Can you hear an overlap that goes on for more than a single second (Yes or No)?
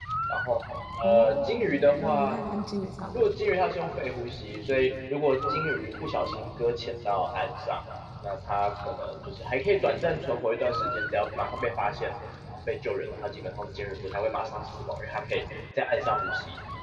Yes